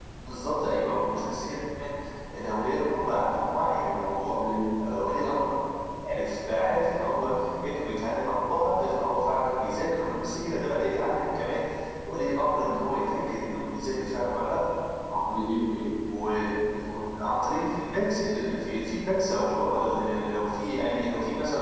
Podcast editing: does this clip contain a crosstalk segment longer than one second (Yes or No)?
No